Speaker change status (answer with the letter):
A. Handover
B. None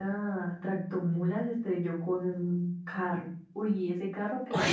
B